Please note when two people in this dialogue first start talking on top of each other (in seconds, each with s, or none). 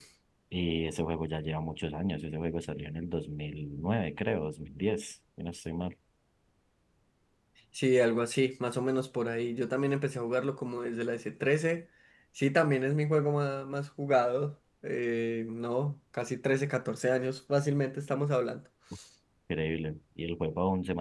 none